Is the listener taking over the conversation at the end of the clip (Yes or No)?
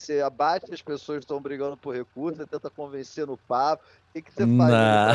No